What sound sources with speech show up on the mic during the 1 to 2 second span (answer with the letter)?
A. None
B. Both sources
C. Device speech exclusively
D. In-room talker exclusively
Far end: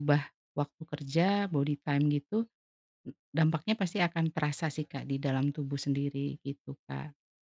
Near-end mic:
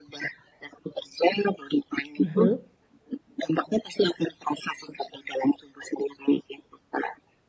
C